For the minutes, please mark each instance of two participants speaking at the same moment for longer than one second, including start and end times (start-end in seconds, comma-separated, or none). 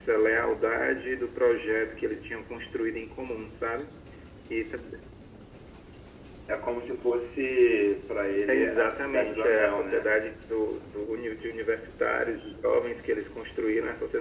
8.5-10.2